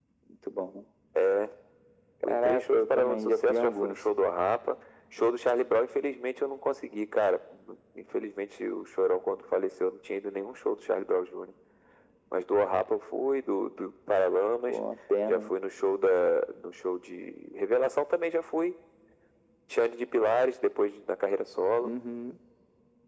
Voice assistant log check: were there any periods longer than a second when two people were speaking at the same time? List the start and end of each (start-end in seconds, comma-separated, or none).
2.2-4.0